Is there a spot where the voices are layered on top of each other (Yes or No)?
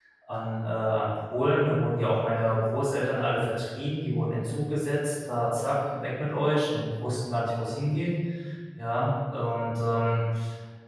No